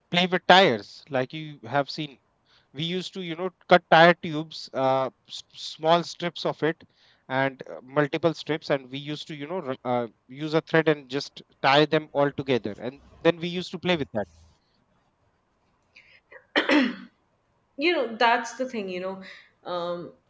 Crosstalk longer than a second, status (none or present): none